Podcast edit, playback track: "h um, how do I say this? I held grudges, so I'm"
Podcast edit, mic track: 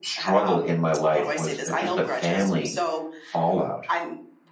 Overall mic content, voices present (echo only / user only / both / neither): both